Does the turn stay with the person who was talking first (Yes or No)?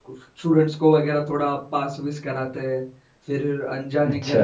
Yes